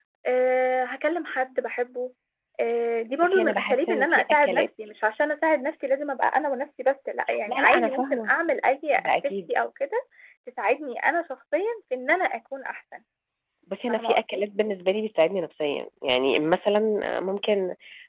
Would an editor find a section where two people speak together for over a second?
Yes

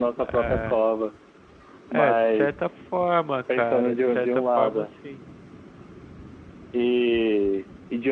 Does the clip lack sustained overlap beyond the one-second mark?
No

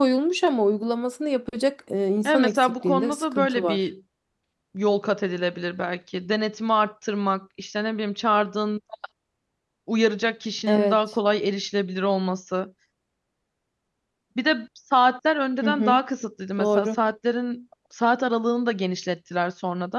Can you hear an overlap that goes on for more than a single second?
Yes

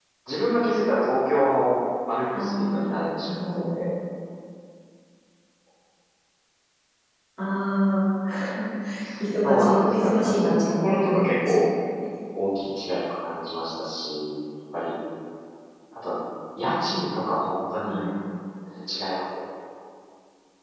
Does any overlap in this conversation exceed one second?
Yes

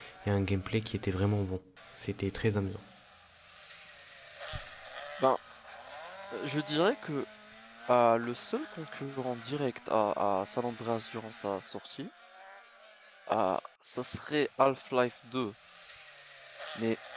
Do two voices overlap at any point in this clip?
No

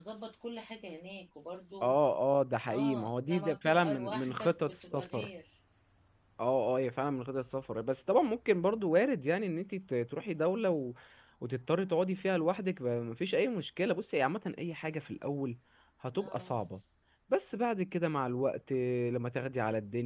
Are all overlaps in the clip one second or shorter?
No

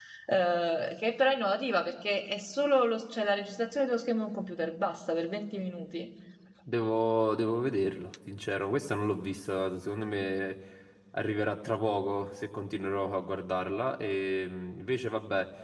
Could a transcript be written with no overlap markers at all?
Yes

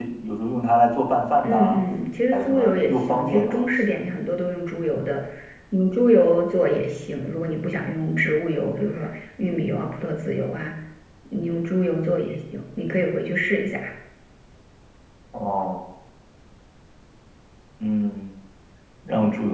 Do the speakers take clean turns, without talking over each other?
No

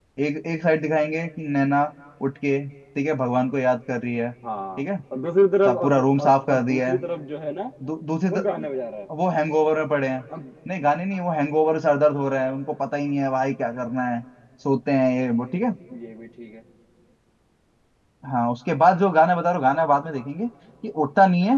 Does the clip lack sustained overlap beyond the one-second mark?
No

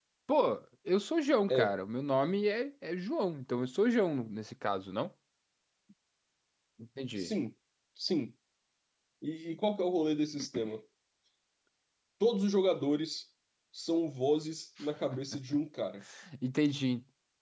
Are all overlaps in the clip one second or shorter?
Yes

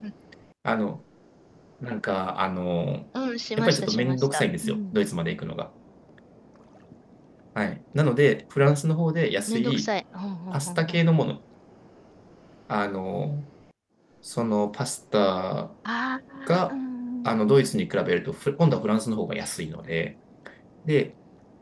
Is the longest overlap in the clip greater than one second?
Yes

